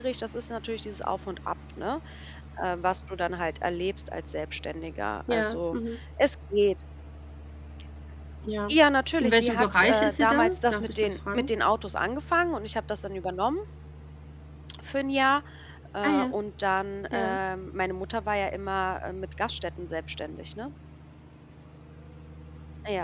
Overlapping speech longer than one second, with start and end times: 9.2-11.5

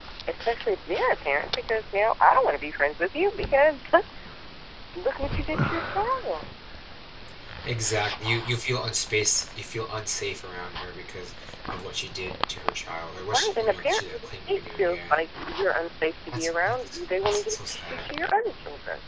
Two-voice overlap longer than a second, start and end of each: 13.3-15.2, 16.3-18.1

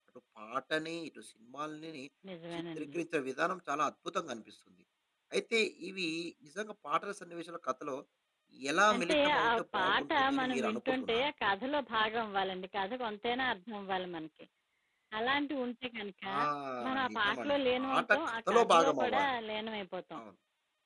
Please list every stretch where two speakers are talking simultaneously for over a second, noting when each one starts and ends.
9.0-11.2, 17.1-19.3

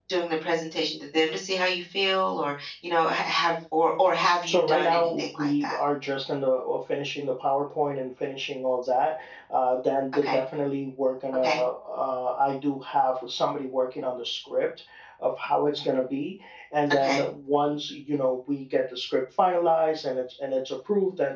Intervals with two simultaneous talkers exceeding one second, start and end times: 4.5-5.8

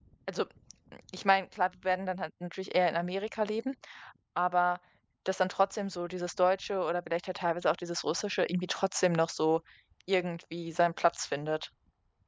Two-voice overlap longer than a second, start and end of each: none

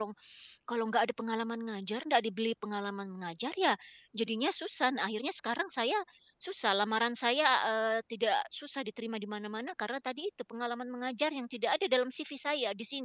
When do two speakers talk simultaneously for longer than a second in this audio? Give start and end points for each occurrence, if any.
none

